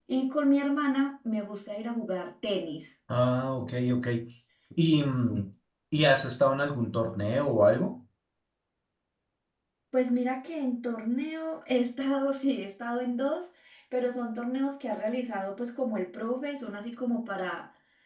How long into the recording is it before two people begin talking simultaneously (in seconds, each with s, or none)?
none